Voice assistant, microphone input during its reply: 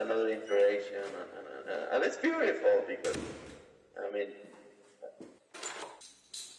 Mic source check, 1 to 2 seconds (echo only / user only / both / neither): echo only